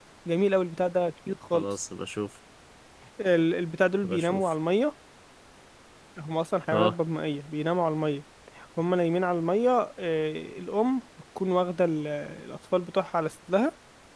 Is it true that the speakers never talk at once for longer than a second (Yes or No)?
Yes